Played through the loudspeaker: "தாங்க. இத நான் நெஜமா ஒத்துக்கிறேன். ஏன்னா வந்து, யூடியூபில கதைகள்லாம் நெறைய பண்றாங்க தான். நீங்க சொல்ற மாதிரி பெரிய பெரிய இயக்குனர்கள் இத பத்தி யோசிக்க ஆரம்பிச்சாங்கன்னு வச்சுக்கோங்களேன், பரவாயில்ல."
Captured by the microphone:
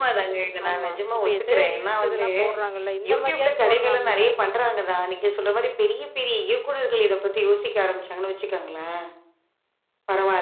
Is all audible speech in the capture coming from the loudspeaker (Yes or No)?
No